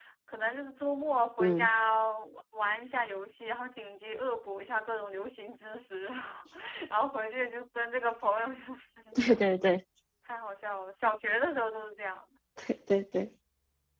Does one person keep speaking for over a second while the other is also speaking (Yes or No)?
No